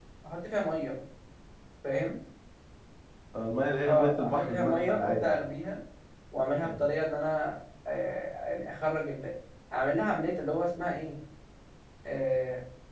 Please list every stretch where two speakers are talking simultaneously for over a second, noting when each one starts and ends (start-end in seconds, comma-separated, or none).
3.9-5.4